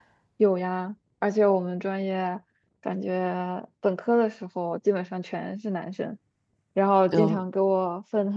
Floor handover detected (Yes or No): No